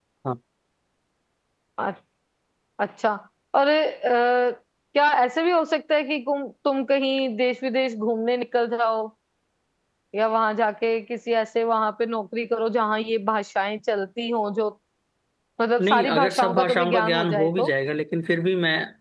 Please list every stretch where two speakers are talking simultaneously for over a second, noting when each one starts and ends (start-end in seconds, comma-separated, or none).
15.8-17.7